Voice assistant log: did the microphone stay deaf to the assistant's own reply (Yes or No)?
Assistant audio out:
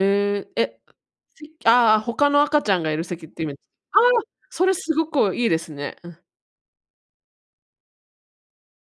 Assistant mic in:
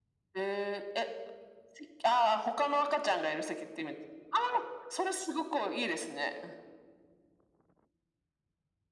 No